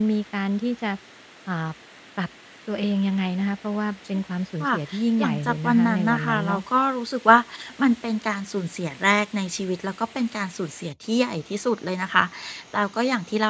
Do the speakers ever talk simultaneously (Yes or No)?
Yes